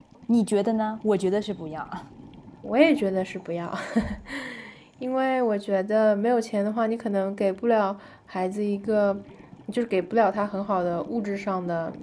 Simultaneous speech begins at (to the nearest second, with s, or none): none